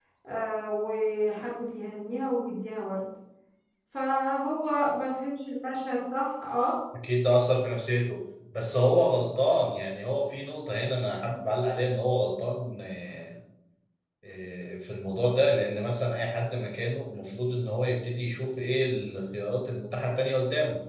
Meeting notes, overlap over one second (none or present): none